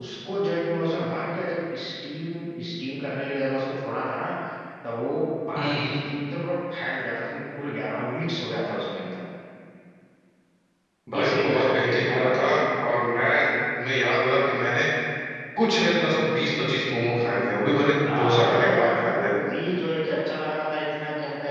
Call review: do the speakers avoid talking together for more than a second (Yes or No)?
No